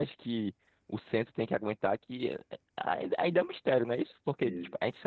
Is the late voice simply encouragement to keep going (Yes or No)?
Yes